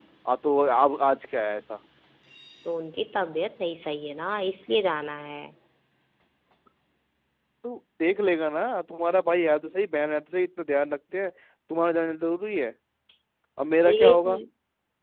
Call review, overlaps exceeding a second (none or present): none